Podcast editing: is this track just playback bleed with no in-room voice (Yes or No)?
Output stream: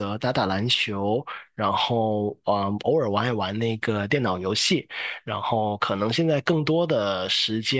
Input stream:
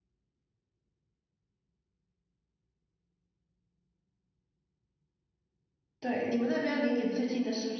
No